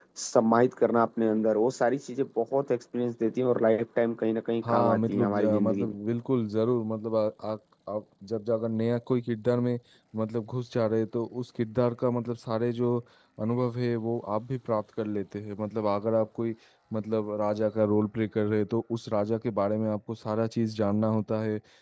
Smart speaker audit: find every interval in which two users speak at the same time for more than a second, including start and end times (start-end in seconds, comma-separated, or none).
4.6-6.0